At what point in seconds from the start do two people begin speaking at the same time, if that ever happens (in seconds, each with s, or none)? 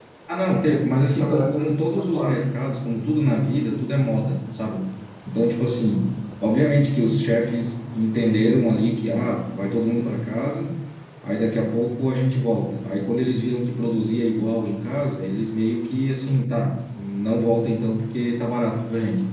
0.6 s